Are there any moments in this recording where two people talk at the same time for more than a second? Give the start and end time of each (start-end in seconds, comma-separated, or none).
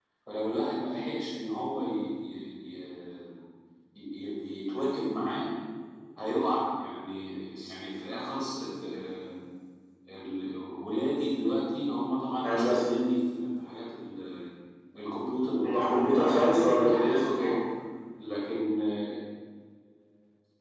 15.6-17.6